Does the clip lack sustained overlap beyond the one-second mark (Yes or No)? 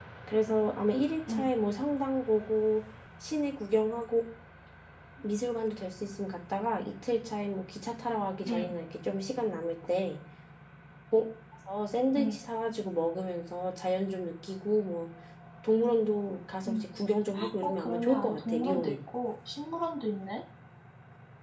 No